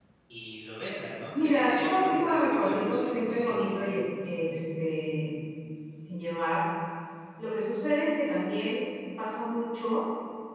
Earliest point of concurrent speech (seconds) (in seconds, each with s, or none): 1.3 s